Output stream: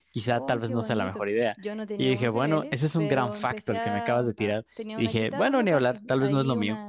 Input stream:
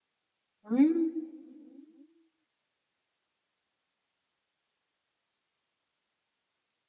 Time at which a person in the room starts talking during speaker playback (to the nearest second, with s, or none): 1 s